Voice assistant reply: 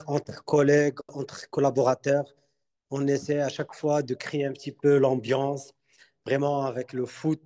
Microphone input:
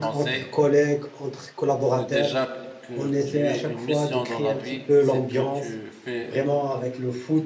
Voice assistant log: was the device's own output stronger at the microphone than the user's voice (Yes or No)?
Yes